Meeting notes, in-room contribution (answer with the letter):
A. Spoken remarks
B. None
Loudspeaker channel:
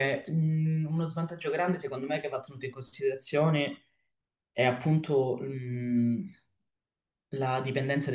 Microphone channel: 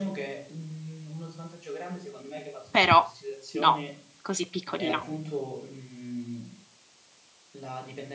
A